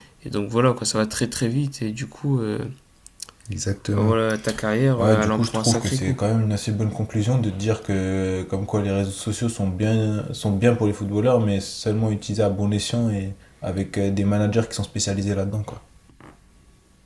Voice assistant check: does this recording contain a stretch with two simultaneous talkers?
Yes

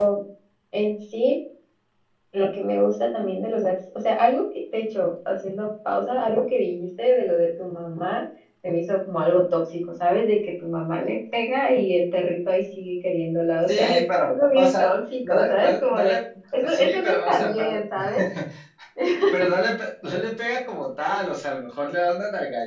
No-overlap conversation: No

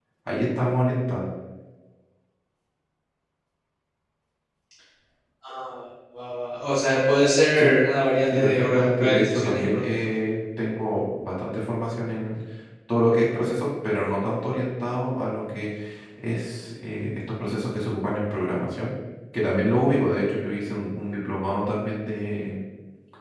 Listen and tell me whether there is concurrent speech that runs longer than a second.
Yes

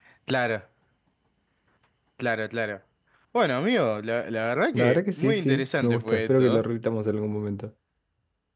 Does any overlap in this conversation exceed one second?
Yes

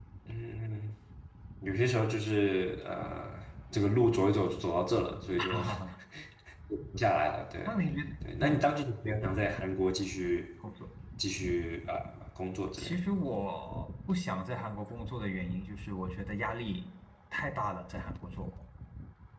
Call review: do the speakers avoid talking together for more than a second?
Yes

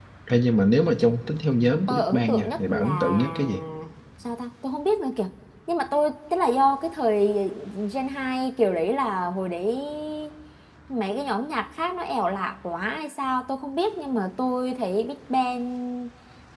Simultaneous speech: Yes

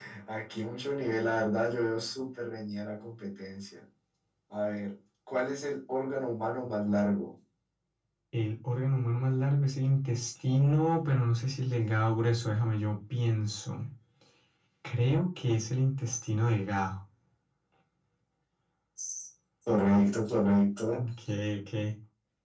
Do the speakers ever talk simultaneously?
No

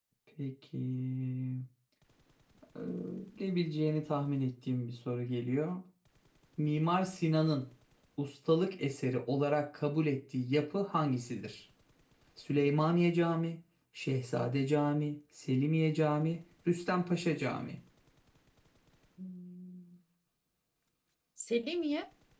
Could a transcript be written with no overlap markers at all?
Yes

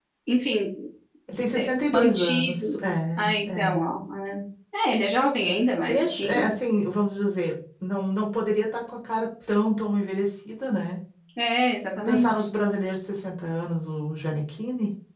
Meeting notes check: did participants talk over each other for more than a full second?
Yes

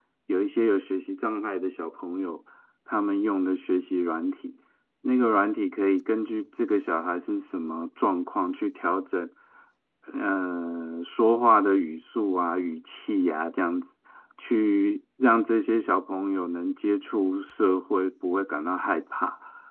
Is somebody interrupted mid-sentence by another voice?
No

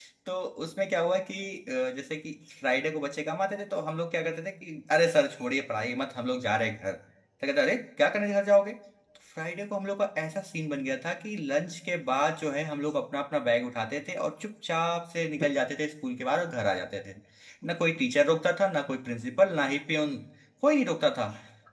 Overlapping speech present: No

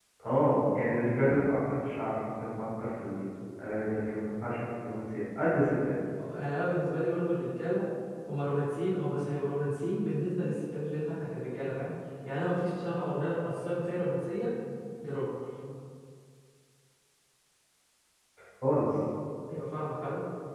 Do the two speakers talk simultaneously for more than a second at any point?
No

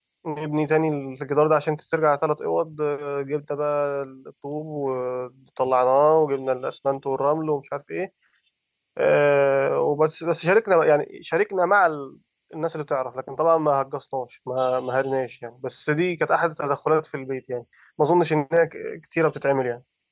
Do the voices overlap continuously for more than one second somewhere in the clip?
No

